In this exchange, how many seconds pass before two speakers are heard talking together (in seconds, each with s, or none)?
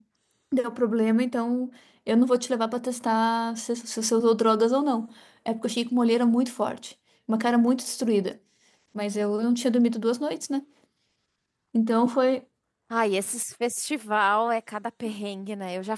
none